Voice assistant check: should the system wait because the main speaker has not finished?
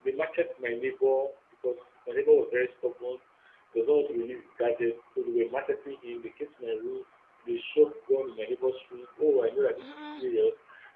Yes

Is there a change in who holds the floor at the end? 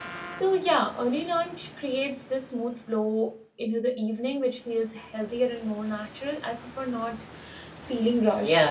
Yes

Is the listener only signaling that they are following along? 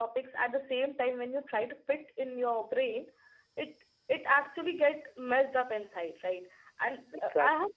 Yes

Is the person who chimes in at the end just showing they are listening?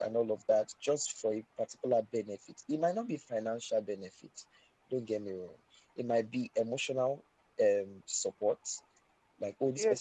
No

